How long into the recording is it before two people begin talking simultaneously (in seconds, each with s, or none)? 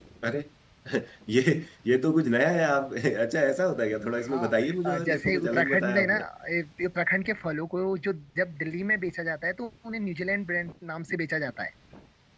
4.2 s